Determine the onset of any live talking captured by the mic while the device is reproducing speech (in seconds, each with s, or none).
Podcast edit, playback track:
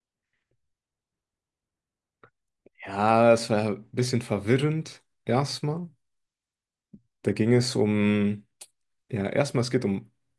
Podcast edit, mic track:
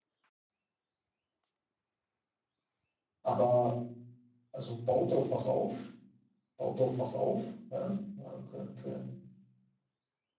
3.2 s